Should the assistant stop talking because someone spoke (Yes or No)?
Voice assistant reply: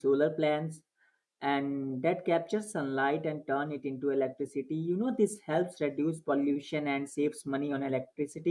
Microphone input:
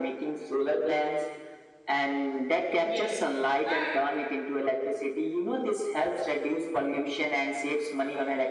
Yes